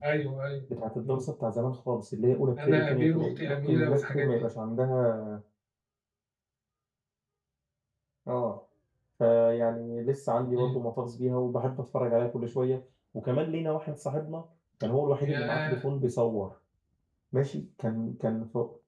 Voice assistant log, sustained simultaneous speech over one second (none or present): present